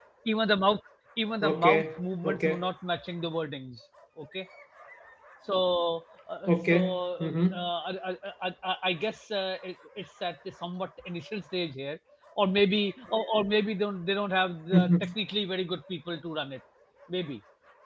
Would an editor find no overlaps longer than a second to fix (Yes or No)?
No